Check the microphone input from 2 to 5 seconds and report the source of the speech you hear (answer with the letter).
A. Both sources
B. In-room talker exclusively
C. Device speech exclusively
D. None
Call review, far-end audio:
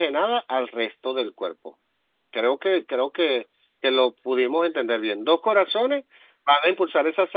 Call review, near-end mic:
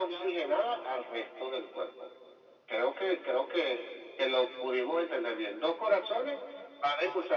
C